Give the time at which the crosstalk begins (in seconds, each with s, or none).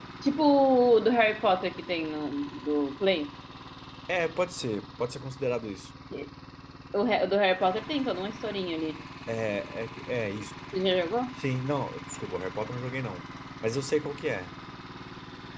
none